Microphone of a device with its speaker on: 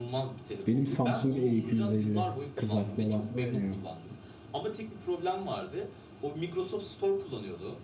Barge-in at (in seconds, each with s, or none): 0.7 s